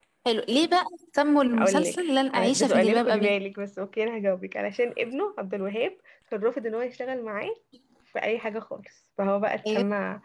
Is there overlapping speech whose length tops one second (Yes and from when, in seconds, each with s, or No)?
Yes, from 1.5 s